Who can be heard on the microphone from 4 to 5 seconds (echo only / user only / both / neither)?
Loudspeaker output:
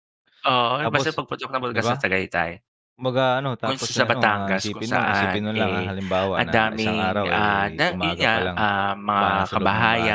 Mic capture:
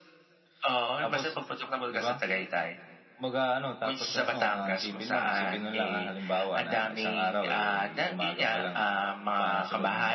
echo only